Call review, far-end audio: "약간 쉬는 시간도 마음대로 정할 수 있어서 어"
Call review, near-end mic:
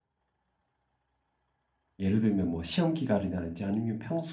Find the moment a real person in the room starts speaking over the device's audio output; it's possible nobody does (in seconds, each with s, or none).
2.0 s